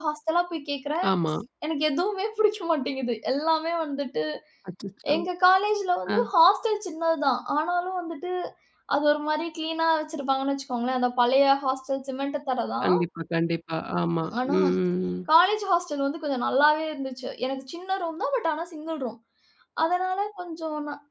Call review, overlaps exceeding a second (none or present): none